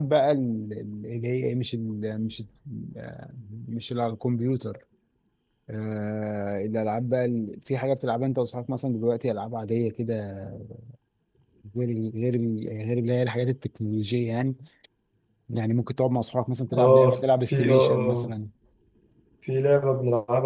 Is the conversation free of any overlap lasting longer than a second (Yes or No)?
No